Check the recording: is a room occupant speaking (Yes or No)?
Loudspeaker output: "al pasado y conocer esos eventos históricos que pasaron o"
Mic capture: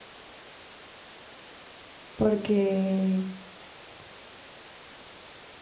Yes